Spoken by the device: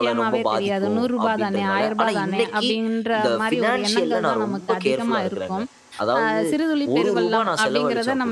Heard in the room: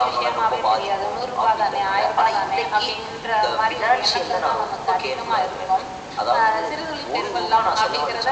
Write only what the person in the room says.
none

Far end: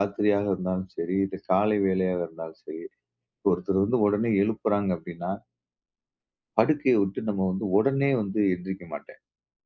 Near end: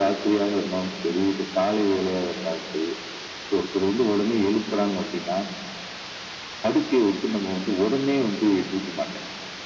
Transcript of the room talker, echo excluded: none

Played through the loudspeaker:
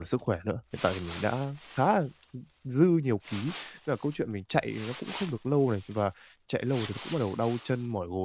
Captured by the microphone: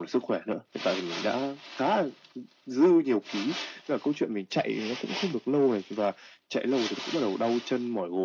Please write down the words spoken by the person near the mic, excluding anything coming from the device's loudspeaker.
none

